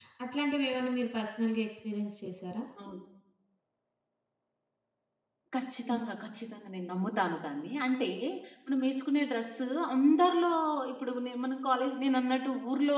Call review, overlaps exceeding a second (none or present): none